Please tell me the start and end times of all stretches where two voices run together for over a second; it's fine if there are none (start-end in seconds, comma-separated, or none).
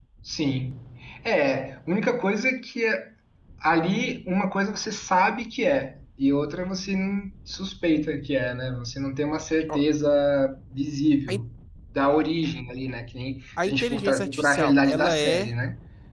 13.7-15.5